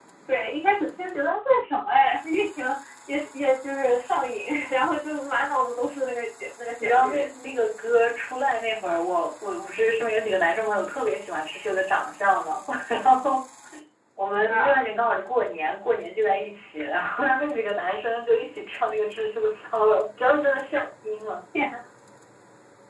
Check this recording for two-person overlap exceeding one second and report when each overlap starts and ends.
none

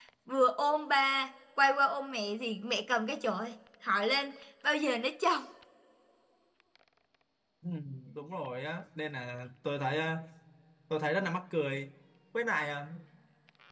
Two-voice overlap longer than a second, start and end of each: none

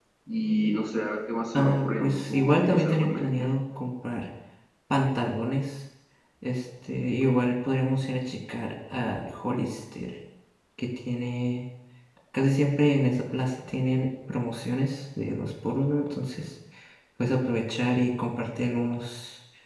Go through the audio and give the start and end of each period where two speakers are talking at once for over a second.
1.5-3.5

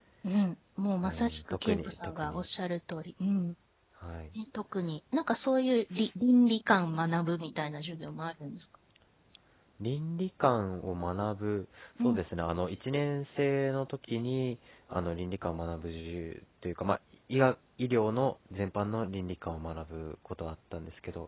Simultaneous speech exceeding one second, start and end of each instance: 1.0-2.5

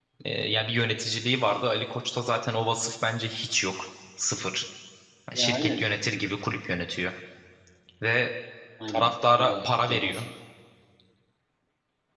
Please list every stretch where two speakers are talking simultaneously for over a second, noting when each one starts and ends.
8.9-10.2

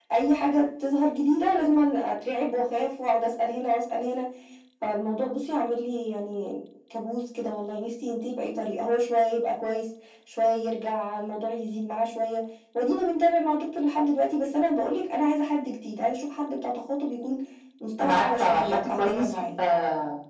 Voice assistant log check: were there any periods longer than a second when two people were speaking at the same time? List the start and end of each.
18.0-19.3

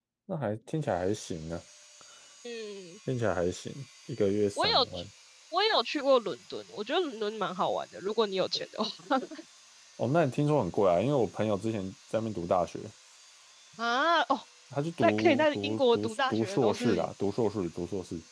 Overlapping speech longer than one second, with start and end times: 15.0-17.1

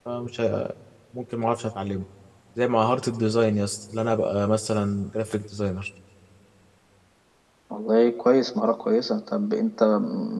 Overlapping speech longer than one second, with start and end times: none

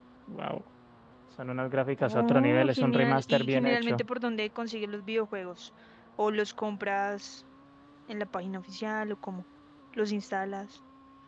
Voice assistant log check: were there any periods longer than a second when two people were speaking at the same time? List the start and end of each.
2.0-4.0

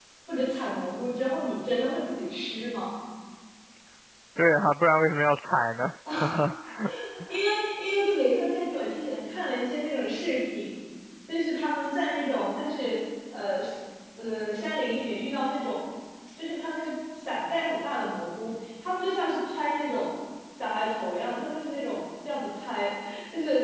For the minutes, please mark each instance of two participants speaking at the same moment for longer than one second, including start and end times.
none

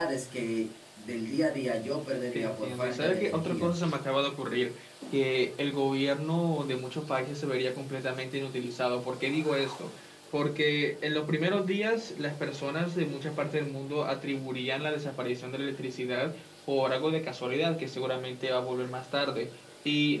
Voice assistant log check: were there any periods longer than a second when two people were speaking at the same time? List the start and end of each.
2.3-3.7

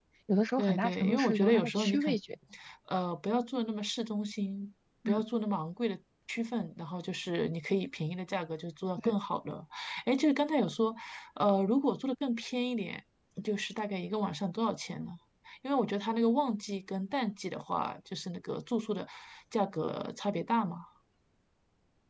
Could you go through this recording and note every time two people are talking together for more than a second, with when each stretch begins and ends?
0.6-2.2

